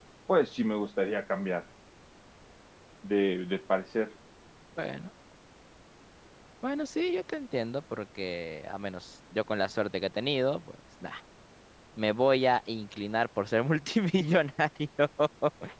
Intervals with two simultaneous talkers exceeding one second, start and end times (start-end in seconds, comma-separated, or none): none